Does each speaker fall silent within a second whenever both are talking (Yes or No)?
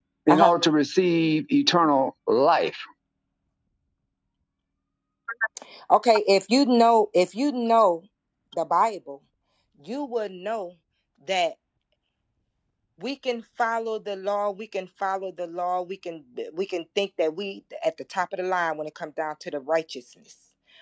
Yes